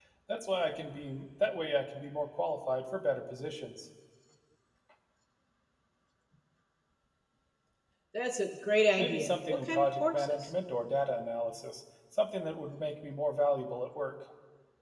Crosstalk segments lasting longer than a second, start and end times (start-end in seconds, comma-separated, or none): 9.0-10.5